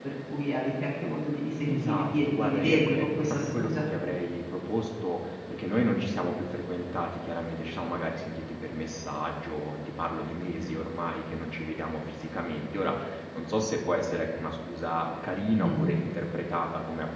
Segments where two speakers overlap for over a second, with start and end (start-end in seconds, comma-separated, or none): 1.7-3.8